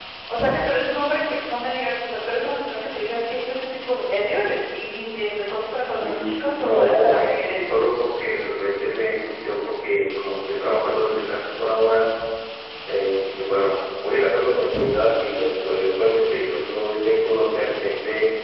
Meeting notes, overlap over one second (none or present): present